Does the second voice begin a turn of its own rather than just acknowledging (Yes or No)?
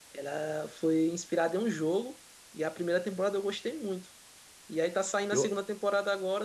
No